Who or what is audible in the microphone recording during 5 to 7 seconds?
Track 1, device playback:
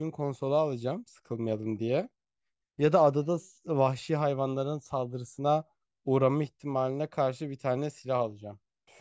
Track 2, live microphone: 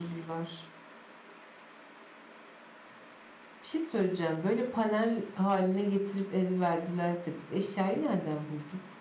user only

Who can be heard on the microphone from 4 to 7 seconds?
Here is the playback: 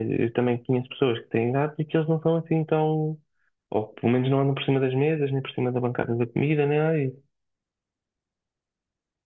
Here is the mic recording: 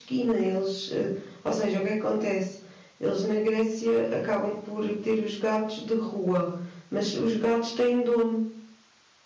user only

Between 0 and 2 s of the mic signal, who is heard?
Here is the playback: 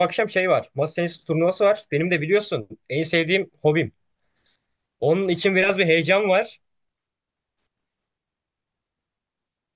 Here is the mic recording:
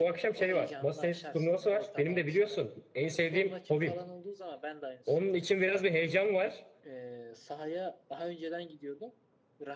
both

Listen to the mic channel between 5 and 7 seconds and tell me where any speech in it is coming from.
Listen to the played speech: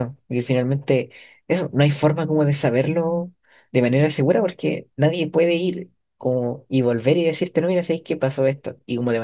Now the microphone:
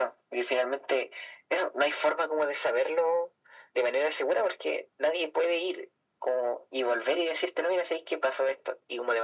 echo only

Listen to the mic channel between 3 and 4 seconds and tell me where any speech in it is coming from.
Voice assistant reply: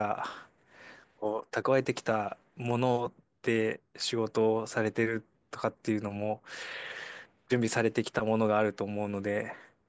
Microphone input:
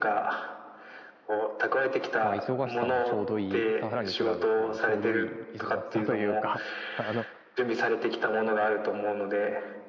both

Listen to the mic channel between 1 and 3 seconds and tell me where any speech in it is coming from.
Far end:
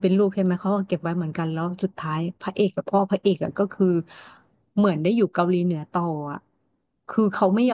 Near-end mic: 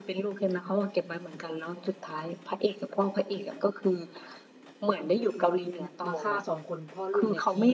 echo only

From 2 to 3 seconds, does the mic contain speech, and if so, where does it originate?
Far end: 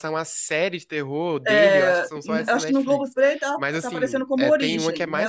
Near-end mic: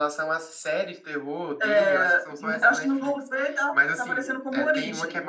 echo only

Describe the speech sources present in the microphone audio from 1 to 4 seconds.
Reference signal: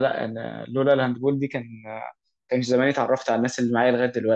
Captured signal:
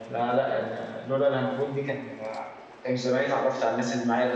echo only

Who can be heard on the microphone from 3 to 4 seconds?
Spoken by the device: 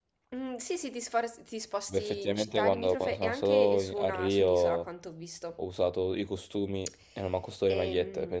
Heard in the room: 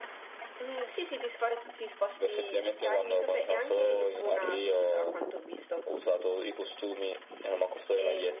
echo only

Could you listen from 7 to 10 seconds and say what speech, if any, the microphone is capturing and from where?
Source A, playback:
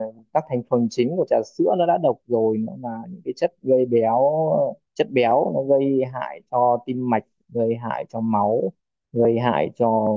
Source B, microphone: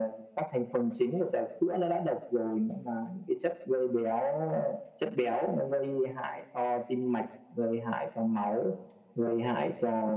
echo only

